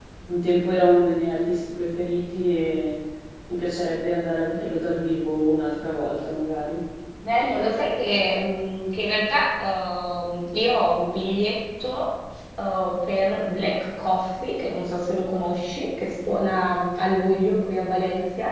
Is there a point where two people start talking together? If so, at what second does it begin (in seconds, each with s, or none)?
none